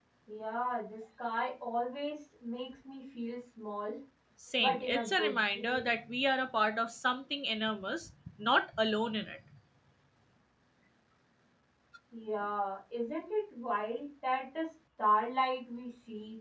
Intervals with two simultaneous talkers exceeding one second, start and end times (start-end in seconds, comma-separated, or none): 4.6-5.9